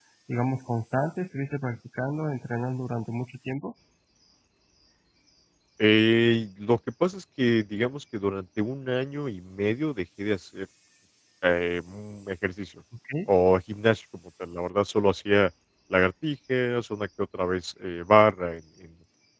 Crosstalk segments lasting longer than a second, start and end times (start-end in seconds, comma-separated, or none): none